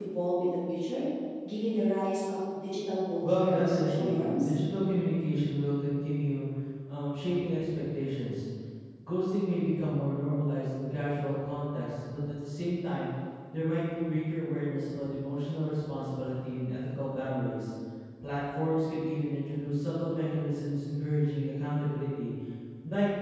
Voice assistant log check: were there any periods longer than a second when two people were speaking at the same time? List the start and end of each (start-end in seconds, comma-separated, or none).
3.3-4.5